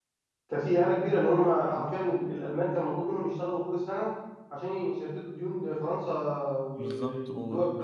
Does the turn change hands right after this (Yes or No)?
Yes